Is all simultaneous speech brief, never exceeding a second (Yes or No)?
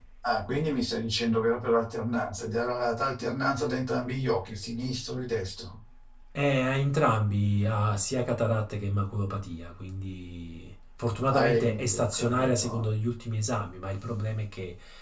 No